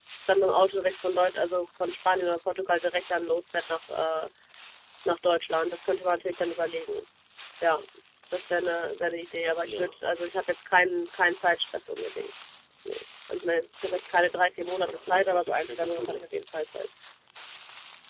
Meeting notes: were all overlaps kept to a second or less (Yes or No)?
No